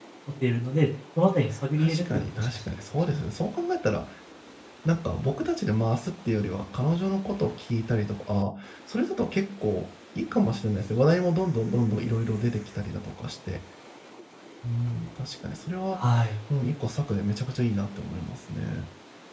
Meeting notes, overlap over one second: present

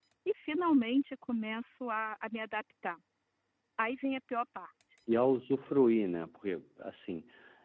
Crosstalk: none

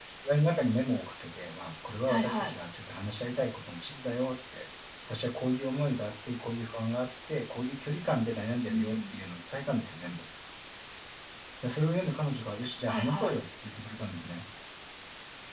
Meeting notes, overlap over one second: none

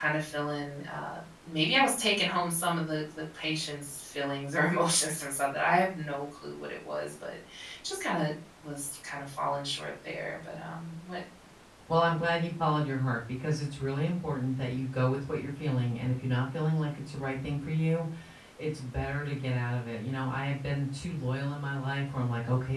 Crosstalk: none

